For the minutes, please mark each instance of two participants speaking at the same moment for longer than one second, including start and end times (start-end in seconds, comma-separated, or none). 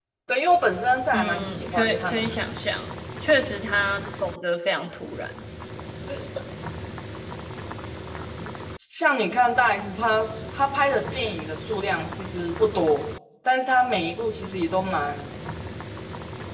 1.1-2.4